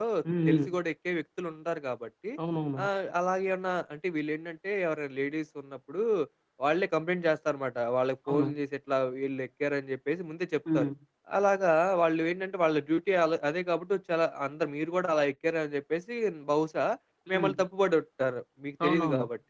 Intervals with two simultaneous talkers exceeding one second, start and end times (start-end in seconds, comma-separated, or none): none